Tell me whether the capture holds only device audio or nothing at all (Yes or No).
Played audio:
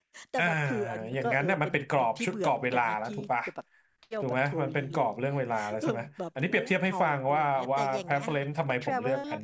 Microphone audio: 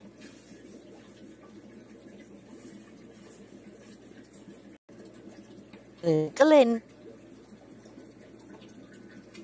No